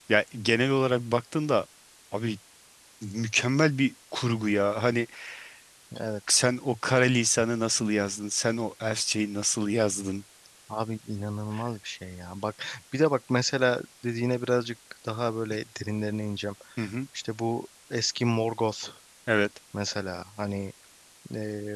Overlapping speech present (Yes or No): No